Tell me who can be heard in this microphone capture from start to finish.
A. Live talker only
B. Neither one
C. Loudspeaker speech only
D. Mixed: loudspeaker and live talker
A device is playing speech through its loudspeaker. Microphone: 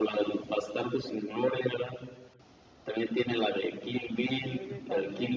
D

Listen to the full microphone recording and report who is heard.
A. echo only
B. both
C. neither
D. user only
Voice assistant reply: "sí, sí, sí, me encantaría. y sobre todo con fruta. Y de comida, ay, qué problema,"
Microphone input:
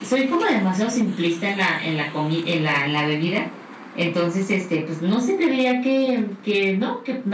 D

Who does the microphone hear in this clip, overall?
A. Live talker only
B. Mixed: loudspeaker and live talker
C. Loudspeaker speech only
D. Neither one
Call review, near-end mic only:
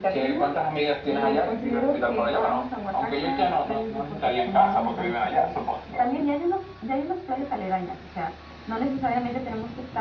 C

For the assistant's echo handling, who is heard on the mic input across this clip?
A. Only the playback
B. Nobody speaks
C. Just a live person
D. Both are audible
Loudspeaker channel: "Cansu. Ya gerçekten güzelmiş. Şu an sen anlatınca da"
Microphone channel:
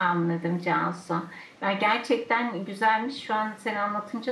A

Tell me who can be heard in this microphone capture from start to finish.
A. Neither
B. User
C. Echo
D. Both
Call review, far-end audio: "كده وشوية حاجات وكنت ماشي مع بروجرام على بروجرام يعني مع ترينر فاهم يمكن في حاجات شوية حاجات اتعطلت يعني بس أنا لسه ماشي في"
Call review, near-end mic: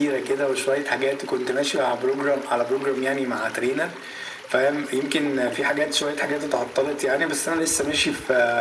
C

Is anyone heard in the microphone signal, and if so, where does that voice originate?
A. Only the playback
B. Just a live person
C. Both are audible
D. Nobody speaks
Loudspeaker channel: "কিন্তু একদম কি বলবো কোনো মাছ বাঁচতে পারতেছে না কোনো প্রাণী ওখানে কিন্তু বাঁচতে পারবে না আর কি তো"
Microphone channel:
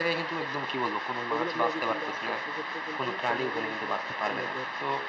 C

